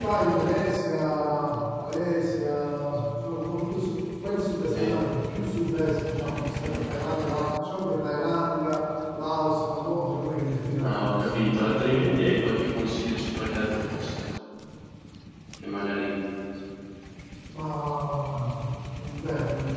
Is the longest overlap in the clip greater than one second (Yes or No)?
Yes